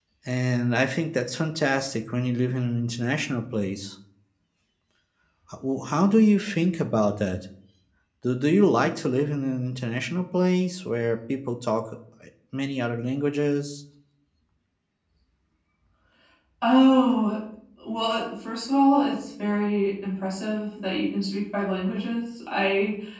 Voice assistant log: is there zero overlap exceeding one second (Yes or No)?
Yes